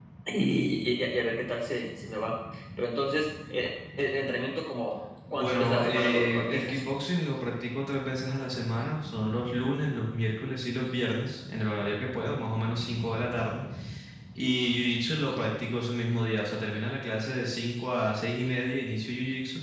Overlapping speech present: Yes, from 5.3 s

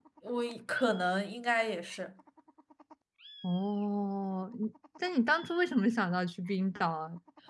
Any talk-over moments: No

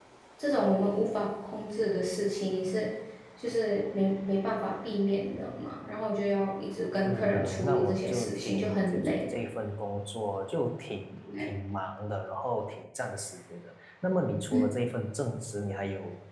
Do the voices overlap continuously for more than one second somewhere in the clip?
Yes, from 7.0 s

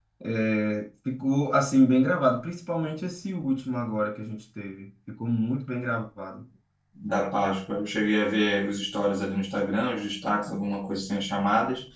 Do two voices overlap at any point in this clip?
No

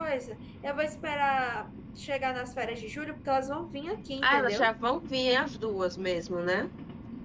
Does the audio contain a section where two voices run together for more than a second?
No

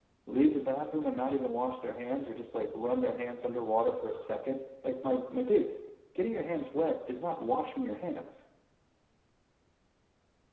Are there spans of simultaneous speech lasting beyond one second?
No

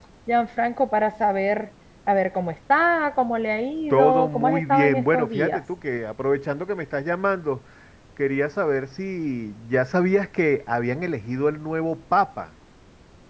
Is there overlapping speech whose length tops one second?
Yes, from 3.9 s

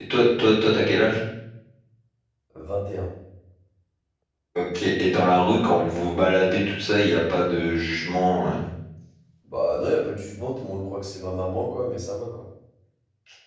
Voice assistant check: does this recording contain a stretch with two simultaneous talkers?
No

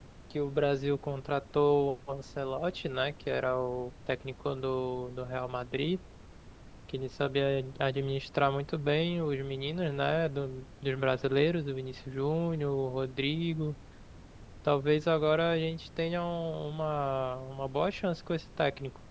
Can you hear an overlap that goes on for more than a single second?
No

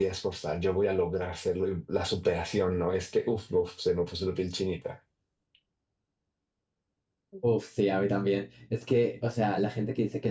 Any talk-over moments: No

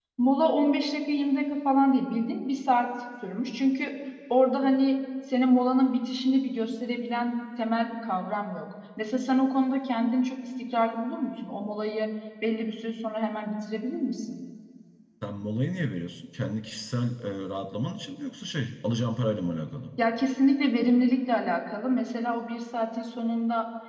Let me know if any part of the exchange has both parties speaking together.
No

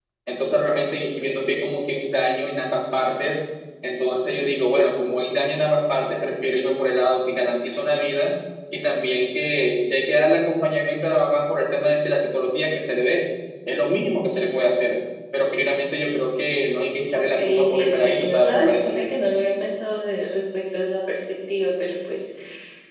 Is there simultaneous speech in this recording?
Yes, from 17.1 s

